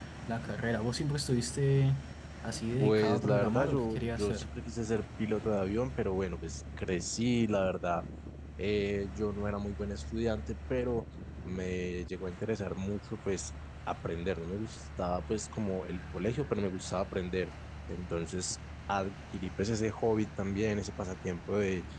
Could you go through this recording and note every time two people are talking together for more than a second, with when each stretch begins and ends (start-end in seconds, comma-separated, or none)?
2.8-4.5